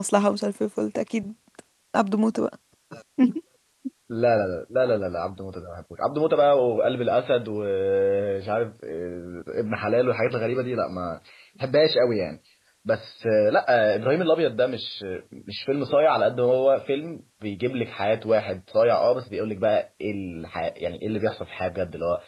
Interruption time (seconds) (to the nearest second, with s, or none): none